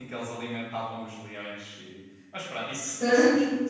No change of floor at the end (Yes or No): Yes